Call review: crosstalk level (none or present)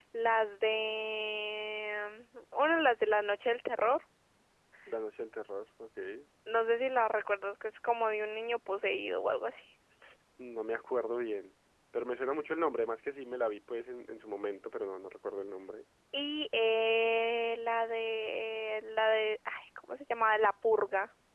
none